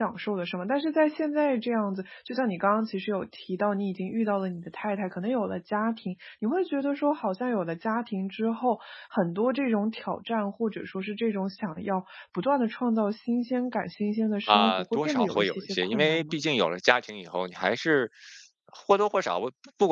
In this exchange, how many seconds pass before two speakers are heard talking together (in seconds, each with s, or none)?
14.5 s